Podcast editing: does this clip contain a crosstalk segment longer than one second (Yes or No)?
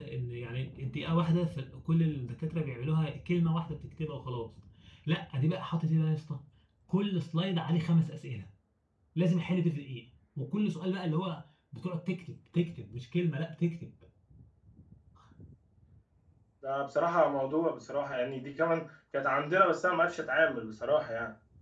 No